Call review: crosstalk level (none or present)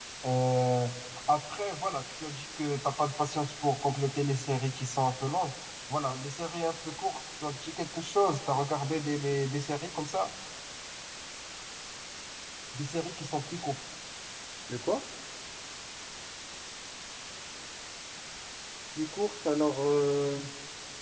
none